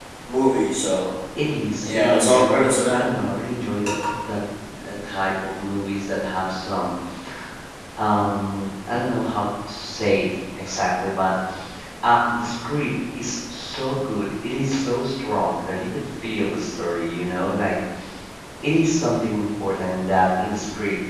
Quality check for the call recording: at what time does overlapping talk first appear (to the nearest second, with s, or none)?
2 s